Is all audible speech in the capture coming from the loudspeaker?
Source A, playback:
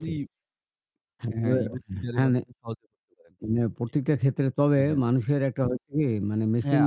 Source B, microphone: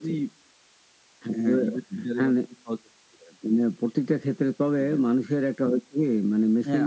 Yes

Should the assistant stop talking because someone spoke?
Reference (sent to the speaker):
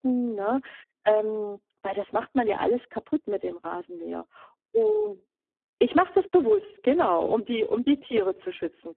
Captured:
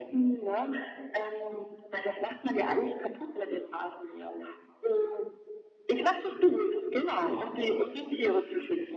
No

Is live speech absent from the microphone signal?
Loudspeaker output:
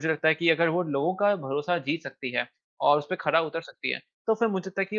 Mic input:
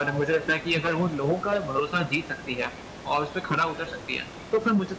Yes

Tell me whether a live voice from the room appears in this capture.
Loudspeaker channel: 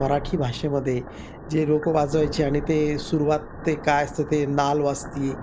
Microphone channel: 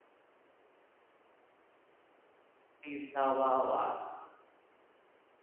Yes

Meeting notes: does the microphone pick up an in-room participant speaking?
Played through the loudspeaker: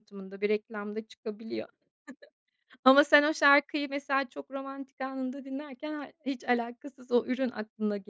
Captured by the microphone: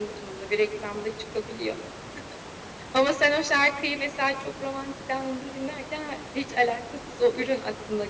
No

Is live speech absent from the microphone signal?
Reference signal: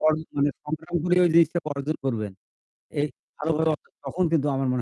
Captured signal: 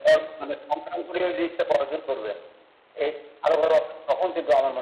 Yes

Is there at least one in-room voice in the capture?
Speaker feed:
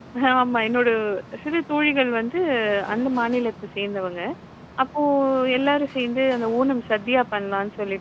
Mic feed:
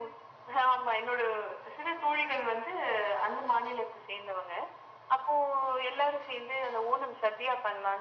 No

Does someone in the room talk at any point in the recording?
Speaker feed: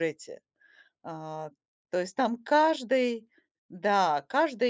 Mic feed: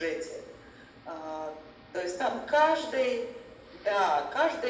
No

